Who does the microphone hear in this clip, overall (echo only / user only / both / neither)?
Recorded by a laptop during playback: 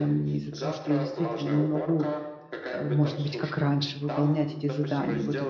both